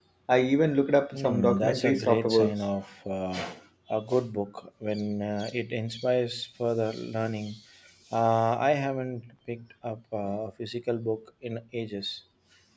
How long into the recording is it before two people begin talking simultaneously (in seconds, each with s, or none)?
1.1 s